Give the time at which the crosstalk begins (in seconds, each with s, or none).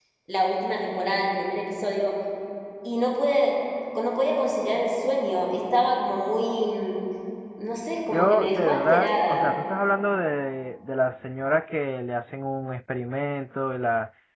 8.1 s